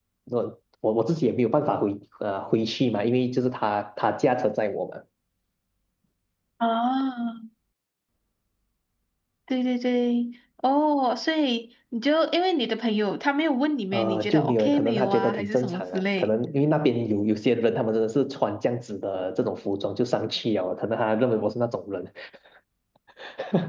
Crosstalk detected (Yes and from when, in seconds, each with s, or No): Yes, from 13.9 s